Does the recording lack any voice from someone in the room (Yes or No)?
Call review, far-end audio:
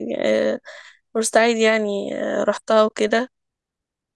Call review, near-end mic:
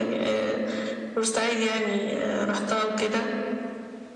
Yes